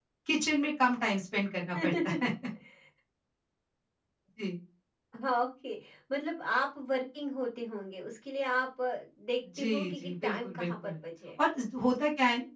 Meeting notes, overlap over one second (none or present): present